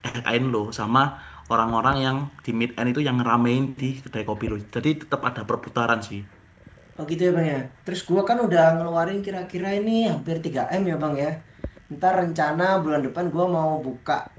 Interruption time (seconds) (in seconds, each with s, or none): none